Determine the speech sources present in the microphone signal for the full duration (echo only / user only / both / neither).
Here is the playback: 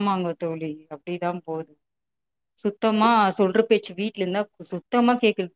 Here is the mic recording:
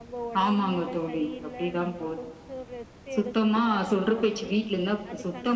both